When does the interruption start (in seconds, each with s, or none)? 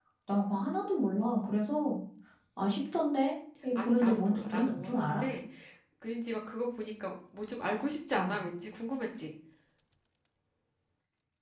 3.8 s